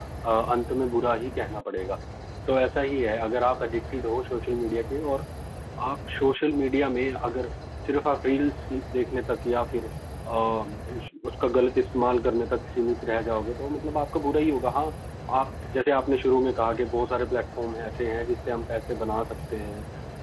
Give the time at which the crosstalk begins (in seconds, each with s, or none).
none